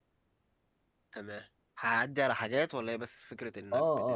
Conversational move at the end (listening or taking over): taking over